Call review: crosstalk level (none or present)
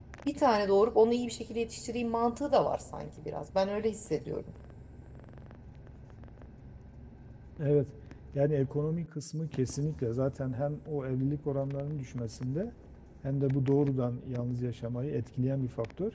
none